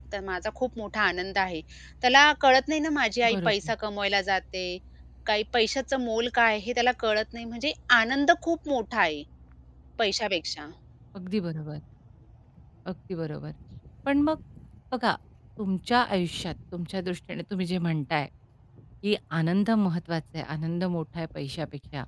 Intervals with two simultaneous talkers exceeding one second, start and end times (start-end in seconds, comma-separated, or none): none